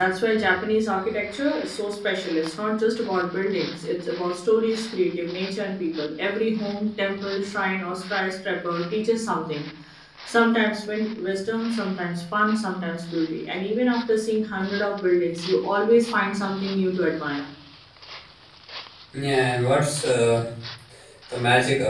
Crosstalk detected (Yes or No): No